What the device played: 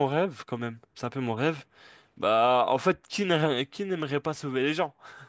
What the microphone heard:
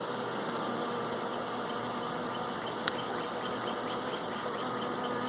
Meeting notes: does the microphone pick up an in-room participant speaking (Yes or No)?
No